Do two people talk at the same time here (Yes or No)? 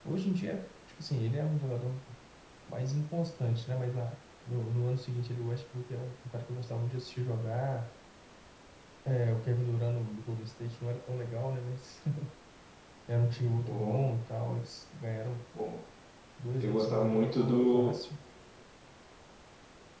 Yes